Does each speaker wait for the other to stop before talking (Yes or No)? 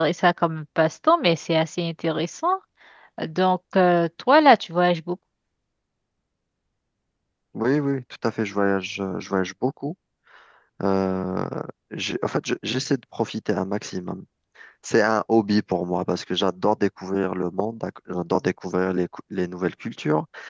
Yes